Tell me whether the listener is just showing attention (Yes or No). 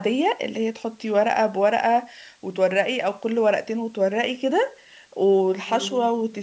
Yes